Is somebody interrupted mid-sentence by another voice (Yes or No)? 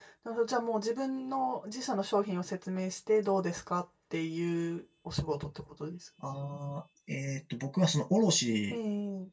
No